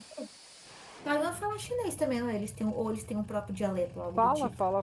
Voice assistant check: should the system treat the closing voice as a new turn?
Yes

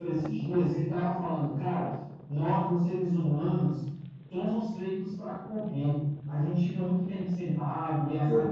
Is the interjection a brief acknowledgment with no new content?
Yes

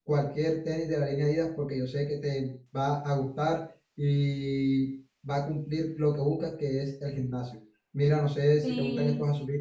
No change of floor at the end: Yes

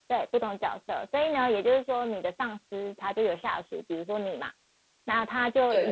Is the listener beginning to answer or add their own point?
No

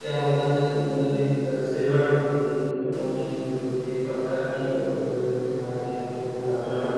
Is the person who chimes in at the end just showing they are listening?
Yes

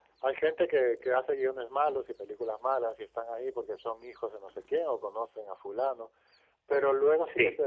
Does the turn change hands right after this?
No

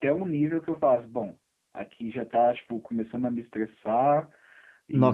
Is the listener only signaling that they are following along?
No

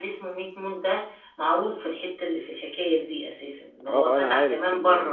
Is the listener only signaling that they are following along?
No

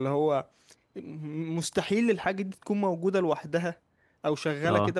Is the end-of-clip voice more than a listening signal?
No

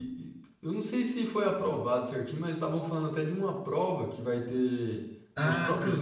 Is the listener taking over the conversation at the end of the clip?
Yes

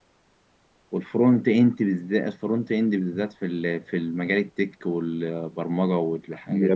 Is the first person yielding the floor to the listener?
Yes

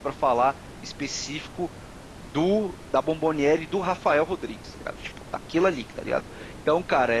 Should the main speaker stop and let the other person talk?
No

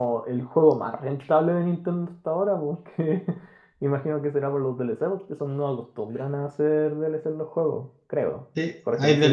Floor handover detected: Yes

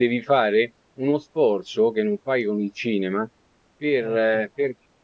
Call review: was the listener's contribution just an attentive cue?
Yes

